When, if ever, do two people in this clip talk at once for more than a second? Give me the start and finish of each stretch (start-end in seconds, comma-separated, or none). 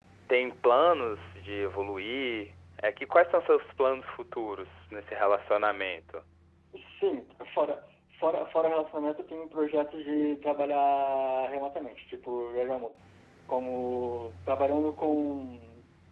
none